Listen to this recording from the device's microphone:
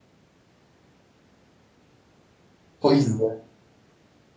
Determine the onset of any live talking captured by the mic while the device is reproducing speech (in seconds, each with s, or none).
2.8 s